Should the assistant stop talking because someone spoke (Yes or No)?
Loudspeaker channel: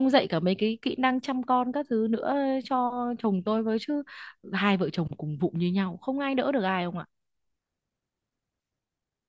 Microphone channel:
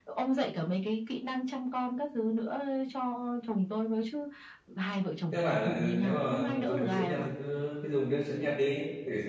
Yes